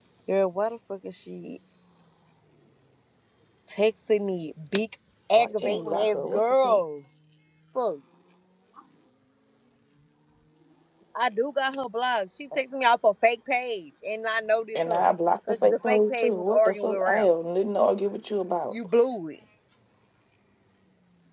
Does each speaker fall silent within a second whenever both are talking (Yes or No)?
No